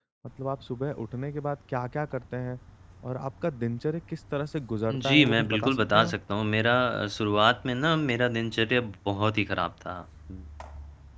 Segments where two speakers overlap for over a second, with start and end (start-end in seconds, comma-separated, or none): 4.9-6.2